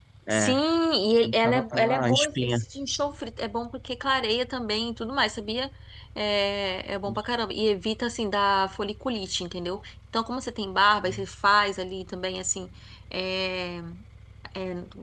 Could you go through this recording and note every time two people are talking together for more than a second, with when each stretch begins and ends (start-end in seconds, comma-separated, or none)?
1.3-2.6